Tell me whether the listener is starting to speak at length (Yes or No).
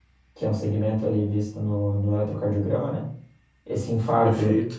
No